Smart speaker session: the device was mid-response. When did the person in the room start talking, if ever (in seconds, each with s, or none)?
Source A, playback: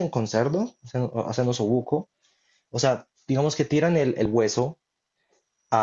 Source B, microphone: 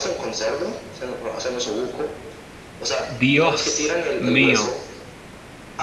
3.1 s